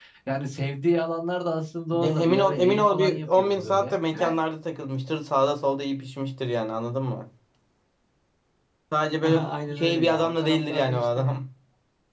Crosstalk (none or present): present